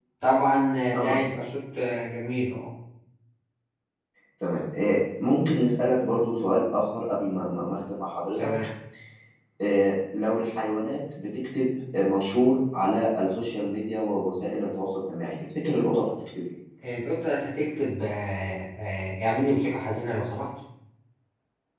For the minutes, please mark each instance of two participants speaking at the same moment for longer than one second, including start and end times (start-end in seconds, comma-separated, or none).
none